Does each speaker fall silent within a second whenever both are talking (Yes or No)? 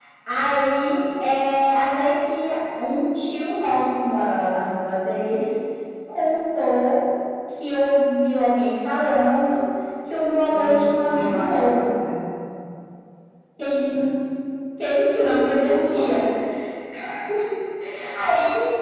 No